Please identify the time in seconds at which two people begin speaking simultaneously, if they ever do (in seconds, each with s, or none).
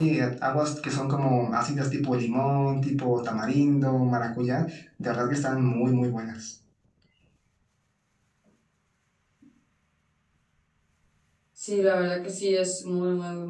none